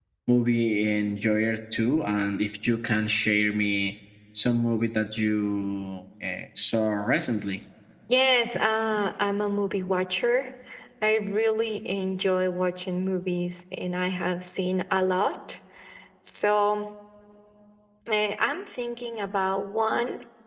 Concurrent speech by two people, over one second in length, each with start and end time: none

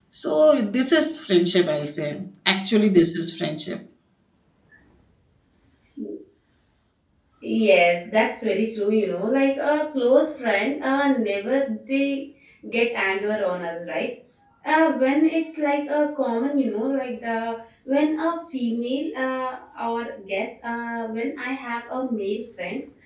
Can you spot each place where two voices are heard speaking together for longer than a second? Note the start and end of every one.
none

